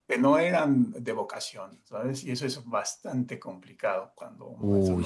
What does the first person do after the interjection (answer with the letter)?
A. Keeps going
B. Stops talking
A